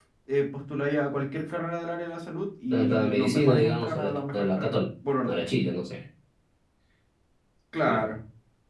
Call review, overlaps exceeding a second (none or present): present